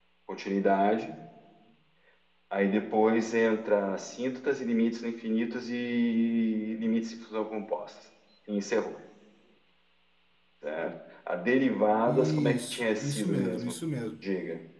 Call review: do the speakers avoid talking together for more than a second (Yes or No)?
No